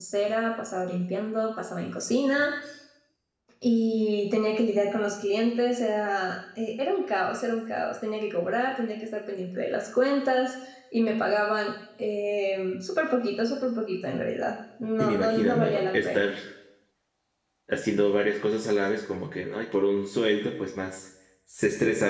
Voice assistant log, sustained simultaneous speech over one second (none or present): present